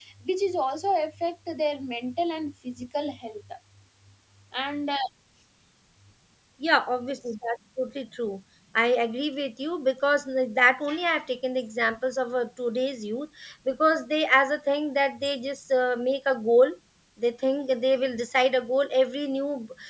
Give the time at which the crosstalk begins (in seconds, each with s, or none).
none